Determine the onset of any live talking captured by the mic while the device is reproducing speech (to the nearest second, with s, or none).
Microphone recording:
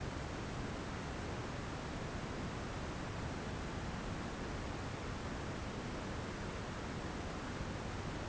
none